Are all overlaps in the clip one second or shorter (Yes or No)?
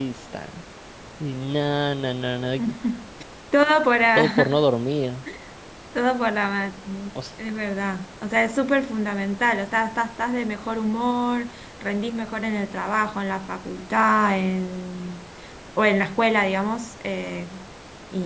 Yes